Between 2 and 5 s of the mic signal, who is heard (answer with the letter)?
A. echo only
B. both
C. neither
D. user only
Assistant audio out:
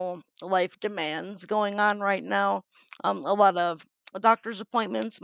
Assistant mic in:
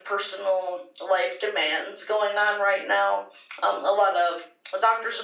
A